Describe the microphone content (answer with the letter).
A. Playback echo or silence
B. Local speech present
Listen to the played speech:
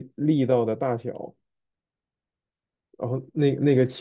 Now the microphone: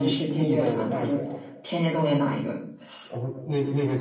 B